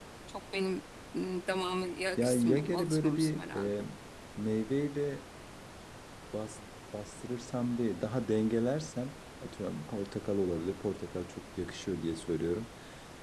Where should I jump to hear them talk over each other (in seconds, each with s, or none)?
2.2 s